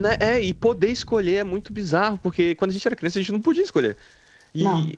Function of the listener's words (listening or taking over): listening